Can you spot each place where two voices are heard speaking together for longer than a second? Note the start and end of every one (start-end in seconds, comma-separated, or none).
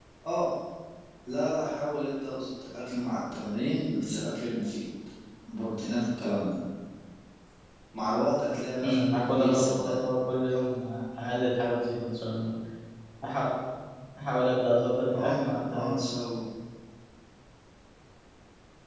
8.8-10.1